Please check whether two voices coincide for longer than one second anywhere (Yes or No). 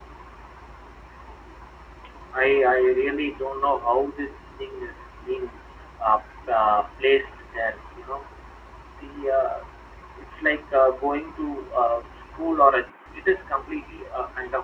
No